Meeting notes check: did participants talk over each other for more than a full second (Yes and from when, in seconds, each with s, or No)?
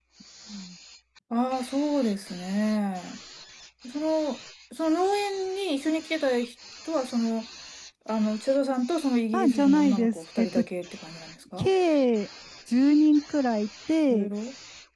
Yes, from 9.3 s